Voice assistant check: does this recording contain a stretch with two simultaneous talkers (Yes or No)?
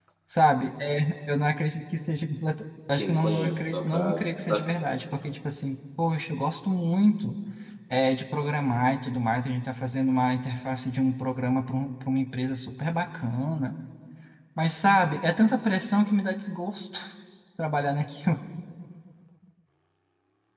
Yes